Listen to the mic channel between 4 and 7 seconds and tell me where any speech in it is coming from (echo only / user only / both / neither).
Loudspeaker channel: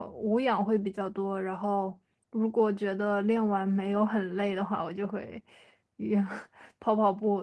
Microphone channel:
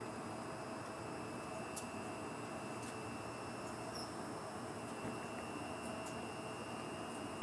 neither